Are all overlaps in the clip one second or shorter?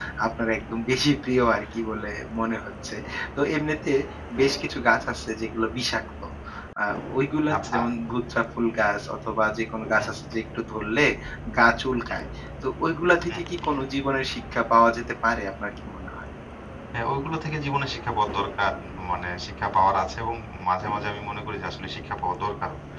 Yes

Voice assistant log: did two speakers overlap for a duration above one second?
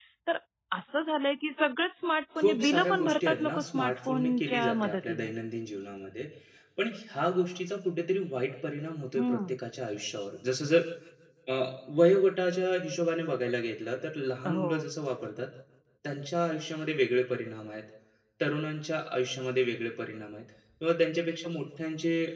Yes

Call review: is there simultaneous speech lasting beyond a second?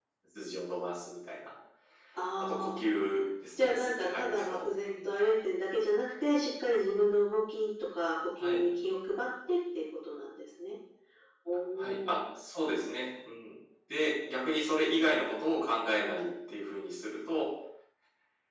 Yes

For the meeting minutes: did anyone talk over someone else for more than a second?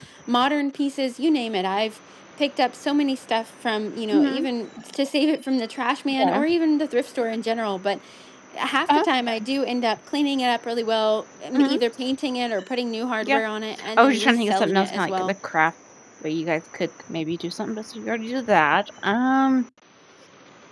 Yes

